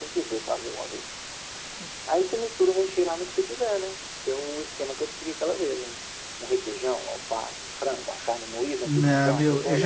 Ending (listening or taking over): taking over